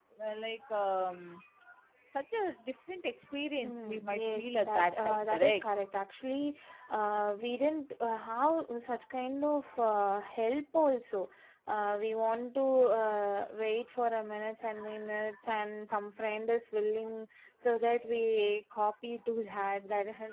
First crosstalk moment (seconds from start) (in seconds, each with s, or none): 3.6 s